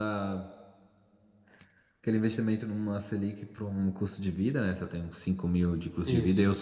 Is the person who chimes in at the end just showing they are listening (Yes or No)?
Yes